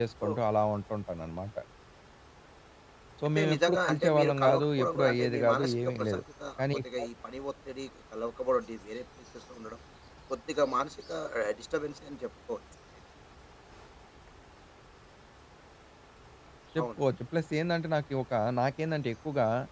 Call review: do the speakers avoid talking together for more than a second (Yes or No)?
No